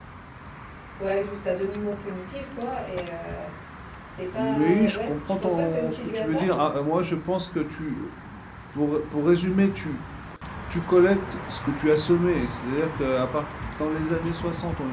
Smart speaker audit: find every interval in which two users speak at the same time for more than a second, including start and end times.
4.4-6.4

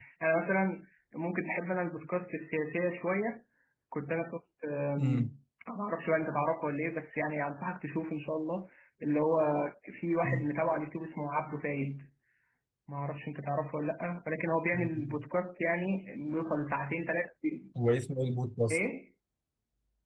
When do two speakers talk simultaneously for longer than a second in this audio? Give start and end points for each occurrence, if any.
none

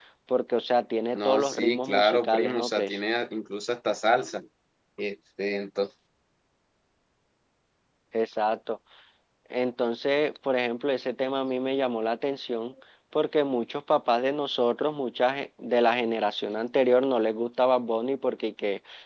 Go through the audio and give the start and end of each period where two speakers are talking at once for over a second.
1.1-3.0

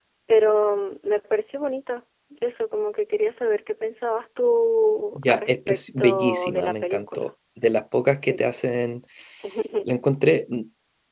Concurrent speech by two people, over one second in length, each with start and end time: 5.2-7.3

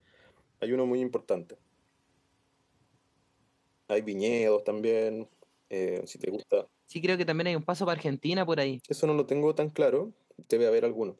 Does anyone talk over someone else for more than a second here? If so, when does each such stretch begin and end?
none

